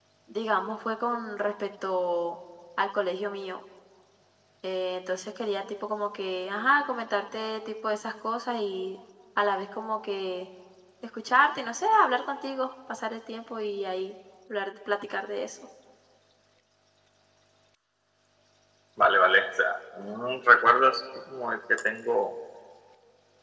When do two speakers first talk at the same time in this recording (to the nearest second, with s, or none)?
none